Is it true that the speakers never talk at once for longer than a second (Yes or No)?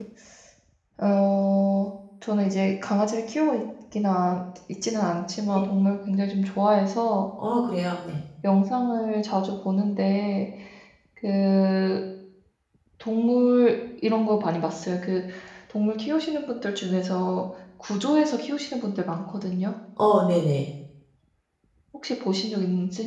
Yes